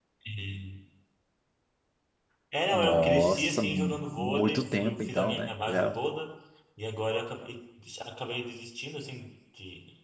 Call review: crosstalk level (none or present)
present